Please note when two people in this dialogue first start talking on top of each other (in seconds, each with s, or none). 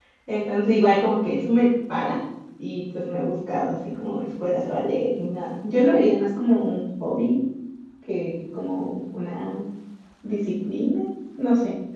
none